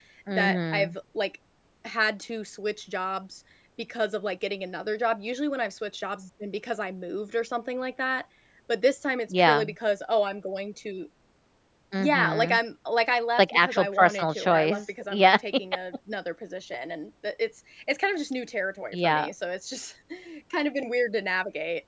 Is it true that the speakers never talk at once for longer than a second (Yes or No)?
No